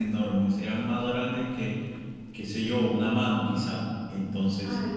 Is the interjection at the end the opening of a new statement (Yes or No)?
Yes